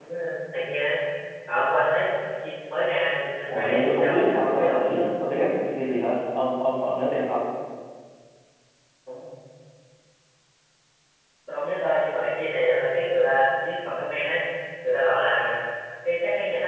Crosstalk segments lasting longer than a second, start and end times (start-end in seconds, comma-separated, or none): 3.5-4.9